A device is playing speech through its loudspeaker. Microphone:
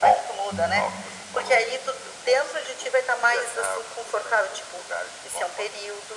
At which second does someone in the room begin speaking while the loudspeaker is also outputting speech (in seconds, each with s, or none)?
0.5 s